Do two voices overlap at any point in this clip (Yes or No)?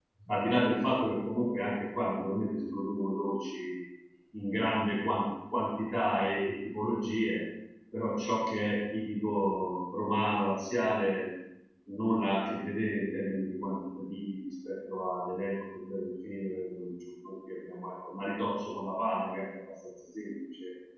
No